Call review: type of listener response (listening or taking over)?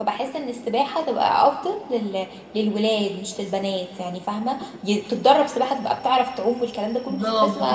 taking over